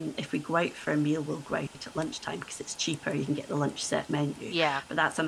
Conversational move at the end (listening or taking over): listening